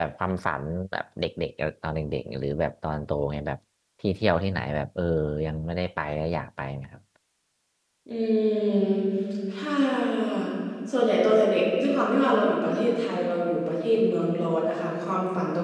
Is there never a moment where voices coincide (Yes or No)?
Yes